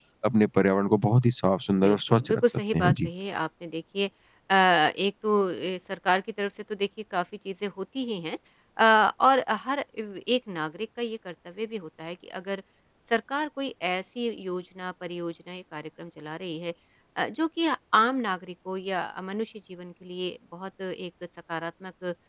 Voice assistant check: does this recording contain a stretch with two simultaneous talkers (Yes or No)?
Yes